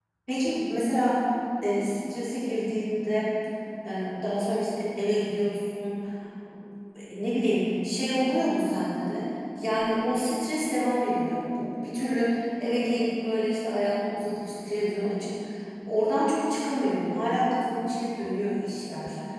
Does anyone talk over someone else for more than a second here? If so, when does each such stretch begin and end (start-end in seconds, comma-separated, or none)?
none